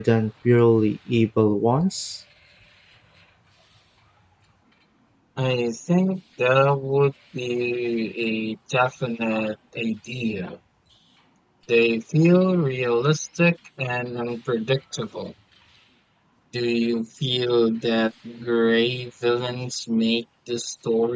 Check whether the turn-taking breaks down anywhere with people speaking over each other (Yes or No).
No